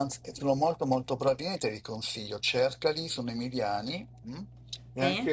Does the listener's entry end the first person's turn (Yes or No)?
No